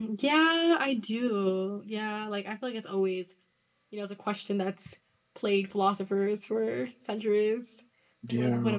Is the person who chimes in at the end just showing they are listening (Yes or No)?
Yes